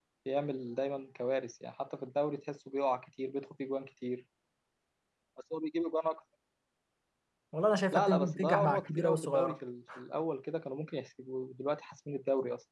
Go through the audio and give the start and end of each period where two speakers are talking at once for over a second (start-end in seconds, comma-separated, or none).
7.9-9.6